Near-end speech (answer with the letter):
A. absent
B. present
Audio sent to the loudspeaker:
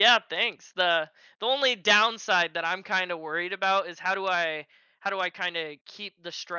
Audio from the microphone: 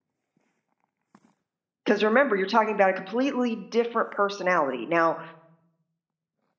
B